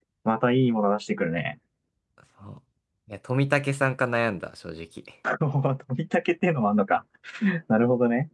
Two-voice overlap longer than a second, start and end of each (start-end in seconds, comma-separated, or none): none